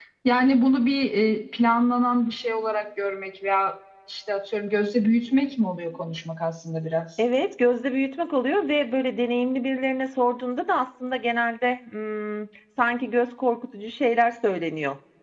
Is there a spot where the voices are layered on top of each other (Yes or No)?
No